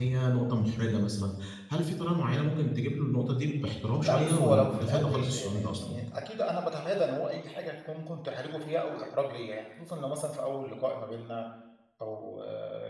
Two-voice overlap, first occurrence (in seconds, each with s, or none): 4.0 s